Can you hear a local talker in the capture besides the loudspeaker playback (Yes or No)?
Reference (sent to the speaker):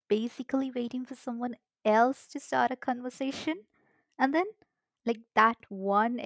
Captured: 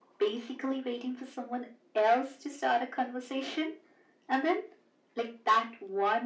No